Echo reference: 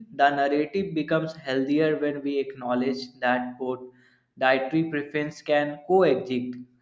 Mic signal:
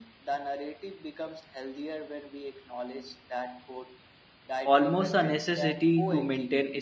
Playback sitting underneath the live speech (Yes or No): Yes